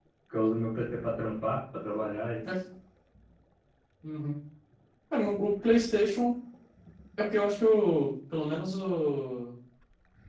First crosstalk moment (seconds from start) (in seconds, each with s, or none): none